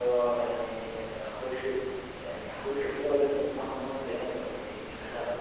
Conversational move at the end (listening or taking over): taking over